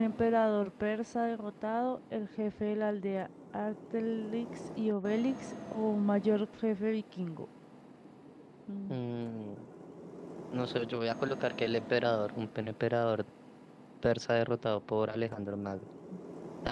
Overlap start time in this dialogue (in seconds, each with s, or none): none